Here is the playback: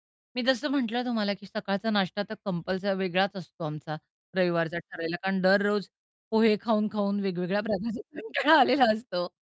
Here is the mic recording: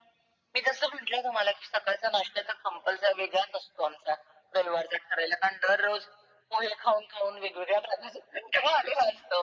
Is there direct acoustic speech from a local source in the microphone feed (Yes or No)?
No